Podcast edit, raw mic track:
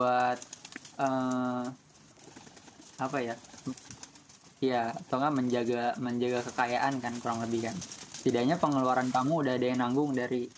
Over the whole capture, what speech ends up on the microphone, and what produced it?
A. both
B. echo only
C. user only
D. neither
C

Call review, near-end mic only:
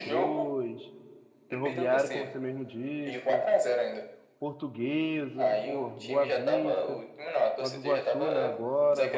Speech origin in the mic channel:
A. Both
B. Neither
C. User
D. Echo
A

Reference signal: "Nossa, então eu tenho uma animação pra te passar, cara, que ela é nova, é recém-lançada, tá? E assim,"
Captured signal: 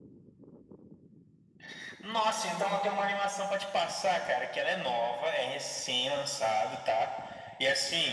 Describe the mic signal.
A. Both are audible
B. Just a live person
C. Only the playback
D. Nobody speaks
C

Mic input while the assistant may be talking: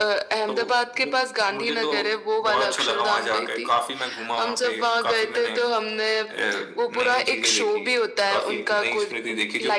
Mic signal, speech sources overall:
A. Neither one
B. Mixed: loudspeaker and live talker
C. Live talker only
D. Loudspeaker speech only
D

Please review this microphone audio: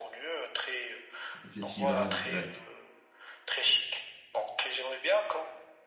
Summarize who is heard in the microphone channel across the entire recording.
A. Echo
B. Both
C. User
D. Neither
B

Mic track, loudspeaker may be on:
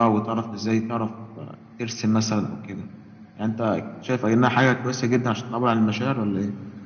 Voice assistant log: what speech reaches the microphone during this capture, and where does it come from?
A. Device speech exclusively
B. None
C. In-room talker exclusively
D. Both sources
A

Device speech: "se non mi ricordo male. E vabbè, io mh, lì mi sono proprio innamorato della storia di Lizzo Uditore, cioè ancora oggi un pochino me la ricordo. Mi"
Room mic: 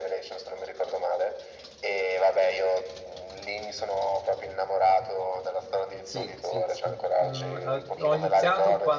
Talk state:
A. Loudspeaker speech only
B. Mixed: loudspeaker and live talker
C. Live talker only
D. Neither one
B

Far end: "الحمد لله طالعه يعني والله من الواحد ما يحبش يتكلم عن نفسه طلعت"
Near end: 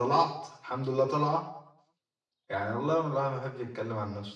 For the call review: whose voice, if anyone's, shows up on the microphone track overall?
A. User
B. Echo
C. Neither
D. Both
B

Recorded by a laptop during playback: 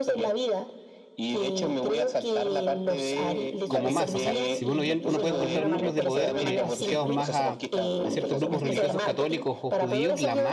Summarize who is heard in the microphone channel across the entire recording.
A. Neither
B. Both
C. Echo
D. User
B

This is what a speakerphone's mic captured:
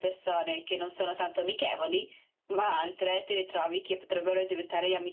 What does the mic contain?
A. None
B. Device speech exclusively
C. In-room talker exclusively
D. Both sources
B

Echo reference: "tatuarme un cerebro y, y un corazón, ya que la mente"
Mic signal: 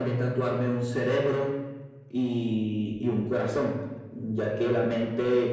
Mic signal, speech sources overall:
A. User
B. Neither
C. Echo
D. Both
C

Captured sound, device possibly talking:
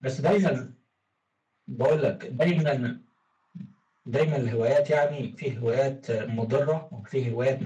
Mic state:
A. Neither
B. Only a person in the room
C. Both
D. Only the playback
B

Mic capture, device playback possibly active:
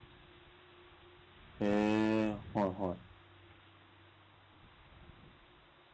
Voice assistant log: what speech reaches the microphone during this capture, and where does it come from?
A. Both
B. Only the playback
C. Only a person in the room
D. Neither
C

